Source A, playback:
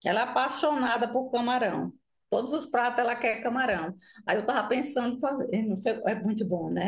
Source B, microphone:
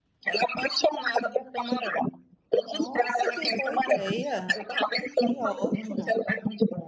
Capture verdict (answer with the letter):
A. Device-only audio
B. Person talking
B